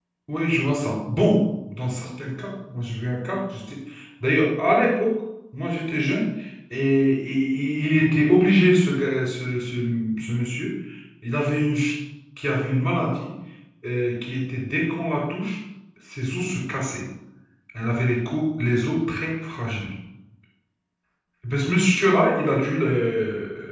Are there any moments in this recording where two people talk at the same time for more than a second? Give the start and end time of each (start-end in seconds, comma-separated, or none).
none